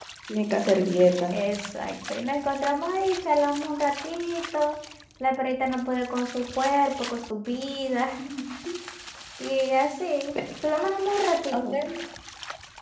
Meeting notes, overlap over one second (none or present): none